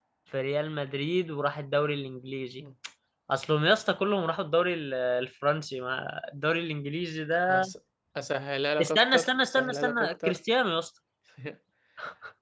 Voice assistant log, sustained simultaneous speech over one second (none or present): present